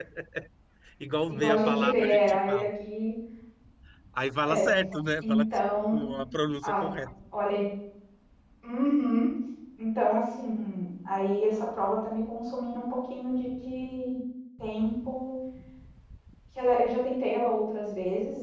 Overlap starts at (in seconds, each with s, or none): 1.3 s